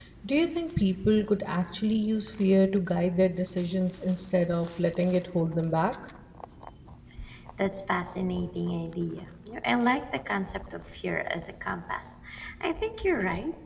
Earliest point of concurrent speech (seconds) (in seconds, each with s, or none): none